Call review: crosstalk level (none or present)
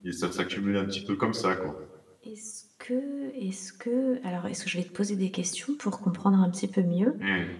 none